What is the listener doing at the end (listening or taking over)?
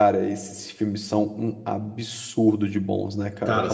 taking over